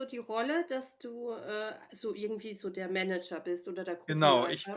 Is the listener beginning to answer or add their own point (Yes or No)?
Yes